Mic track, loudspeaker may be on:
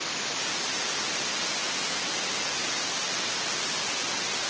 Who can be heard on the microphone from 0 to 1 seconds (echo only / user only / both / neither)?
neither